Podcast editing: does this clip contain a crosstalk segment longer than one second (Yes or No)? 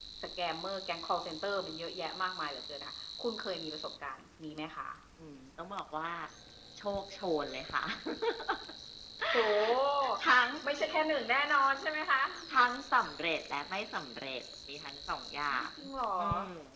No